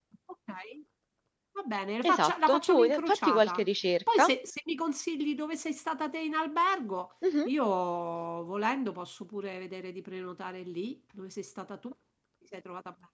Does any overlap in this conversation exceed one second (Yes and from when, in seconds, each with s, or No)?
Yes, from 2.0 s